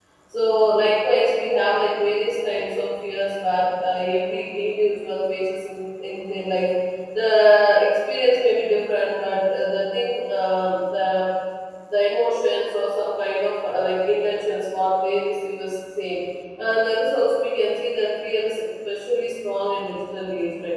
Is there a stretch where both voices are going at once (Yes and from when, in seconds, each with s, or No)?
No